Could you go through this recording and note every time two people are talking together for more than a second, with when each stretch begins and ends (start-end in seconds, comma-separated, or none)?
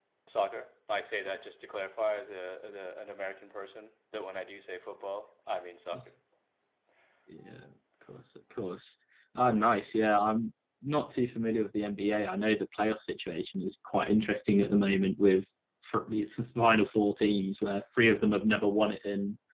none